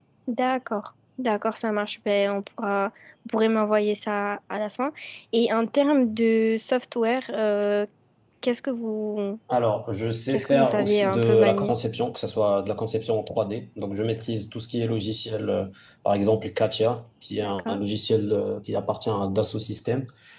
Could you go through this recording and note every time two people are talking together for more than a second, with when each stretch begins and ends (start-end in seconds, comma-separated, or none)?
10.3-11.7